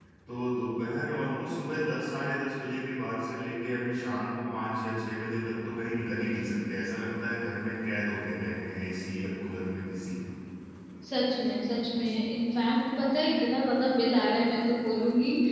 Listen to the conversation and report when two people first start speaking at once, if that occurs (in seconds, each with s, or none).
none